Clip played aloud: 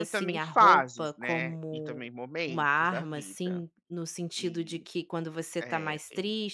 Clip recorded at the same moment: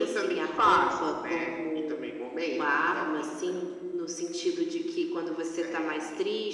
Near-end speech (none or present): none